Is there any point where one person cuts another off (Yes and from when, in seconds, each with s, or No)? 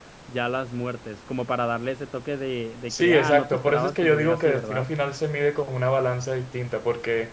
Yes, from 2.9 s